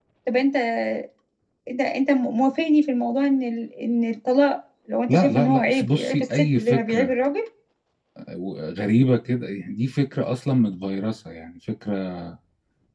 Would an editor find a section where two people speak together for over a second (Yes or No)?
Yes